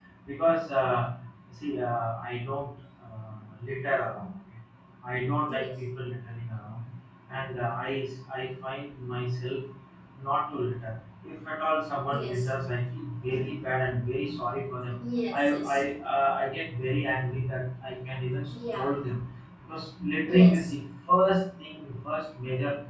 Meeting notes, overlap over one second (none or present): none